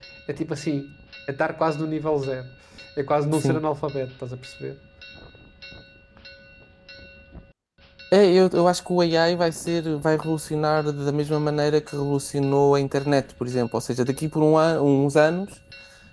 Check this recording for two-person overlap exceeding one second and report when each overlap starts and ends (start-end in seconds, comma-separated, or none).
none